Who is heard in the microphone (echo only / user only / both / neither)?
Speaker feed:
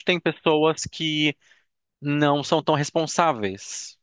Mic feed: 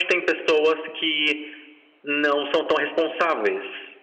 echo only